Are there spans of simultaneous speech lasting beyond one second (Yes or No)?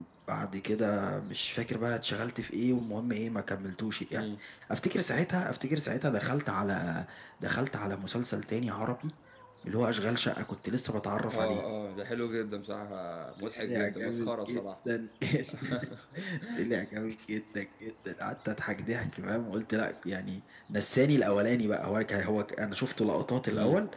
Yes